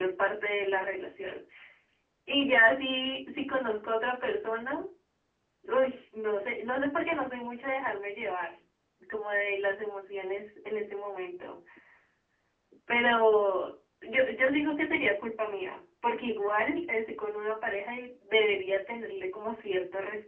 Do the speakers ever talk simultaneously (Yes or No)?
No